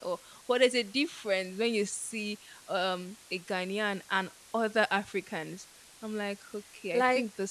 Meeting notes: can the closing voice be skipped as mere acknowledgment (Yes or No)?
No